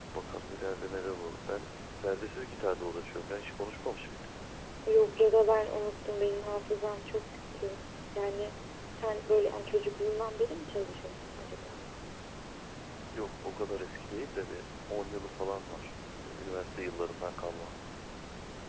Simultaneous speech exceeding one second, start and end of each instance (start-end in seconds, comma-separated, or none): none